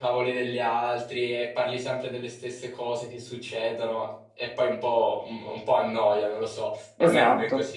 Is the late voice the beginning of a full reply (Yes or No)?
Yes